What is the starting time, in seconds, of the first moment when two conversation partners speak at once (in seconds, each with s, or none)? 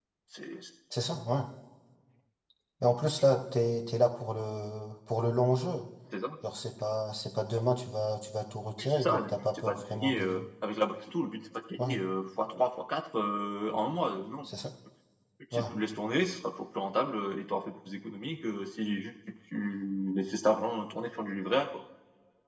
8.8 s